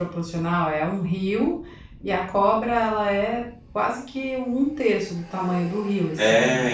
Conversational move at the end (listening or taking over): taking over